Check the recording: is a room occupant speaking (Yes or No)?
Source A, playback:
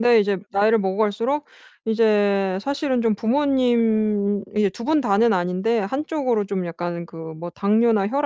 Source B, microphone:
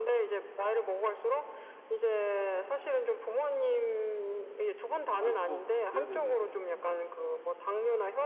Yes